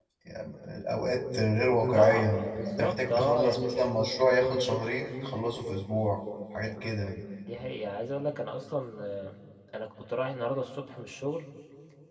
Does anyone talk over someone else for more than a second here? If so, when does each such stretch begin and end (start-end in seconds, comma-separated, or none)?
1.9-3.8